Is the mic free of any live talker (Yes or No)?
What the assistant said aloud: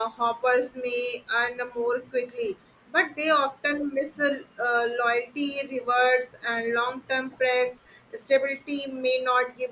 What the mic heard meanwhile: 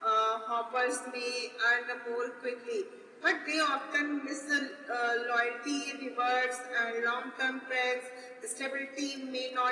Yes